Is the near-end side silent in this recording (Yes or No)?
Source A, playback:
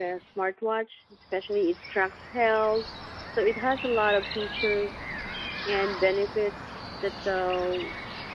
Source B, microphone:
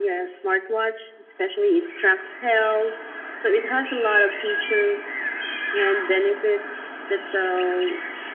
Yes